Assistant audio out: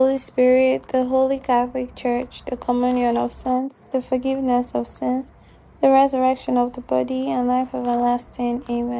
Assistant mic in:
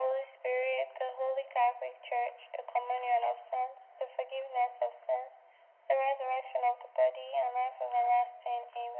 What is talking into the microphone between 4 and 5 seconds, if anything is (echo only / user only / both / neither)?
echo only